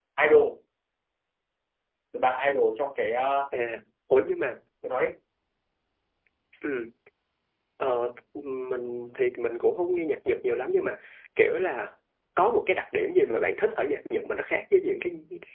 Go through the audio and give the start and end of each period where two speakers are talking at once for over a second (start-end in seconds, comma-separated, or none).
none